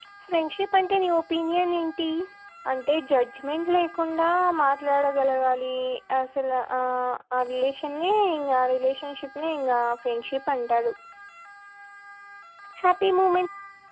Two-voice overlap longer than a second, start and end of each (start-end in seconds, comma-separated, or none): none